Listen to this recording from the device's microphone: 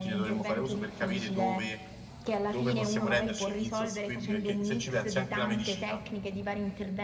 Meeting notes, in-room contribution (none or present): present